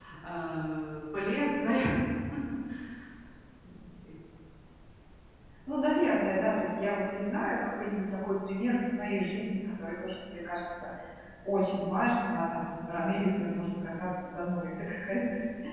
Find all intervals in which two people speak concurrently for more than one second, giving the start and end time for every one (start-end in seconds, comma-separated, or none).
none